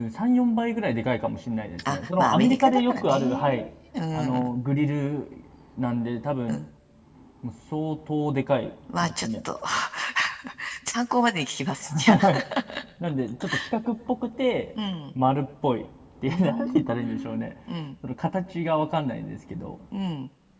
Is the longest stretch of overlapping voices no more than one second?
No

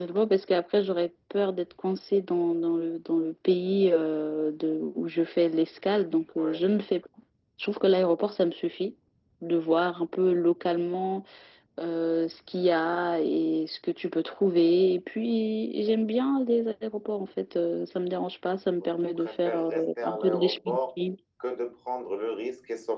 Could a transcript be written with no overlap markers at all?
No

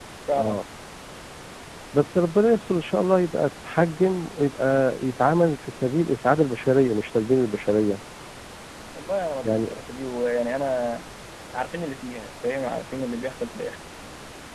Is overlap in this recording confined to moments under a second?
Yes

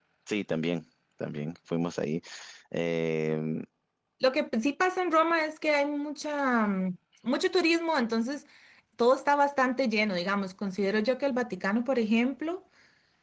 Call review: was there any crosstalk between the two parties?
No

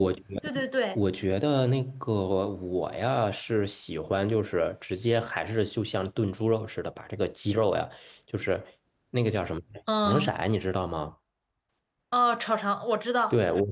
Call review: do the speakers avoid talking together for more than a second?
Yes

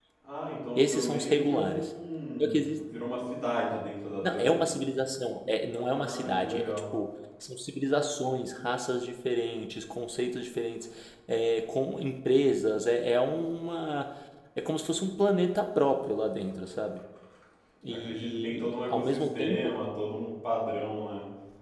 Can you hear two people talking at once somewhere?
Yes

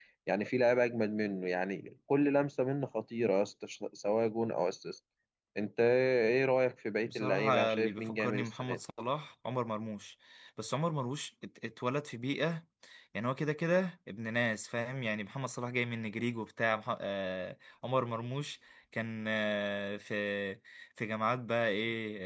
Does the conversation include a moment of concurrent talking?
Yes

